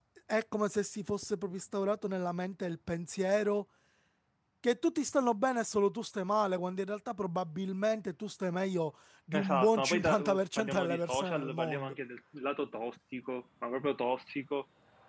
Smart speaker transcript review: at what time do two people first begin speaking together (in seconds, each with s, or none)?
9.3 s